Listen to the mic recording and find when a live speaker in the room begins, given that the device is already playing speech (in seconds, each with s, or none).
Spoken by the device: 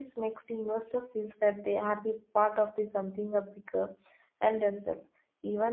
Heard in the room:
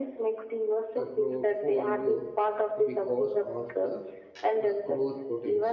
0.9 s